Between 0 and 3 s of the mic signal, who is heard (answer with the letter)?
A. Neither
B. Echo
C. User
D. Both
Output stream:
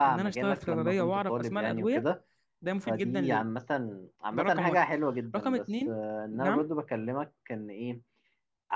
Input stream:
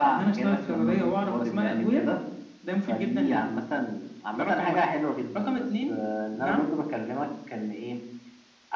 B